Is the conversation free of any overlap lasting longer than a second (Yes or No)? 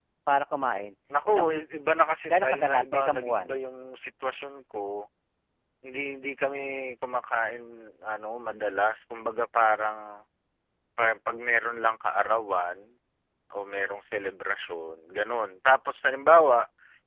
No